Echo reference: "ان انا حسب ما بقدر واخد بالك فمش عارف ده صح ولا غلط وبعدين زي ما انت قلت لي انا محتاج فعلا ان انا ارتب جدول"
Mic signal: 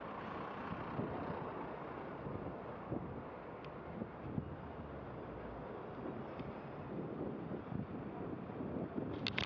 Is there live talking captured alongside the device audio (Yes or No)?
No